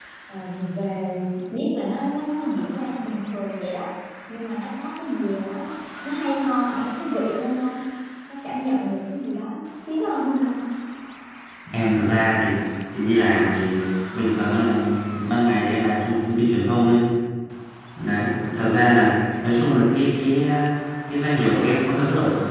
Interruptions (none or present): none